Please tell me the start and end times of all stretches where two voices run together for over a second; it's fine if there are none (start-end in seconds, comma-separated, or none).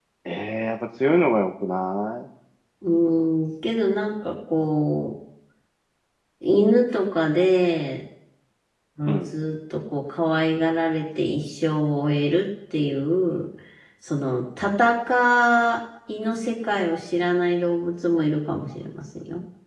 none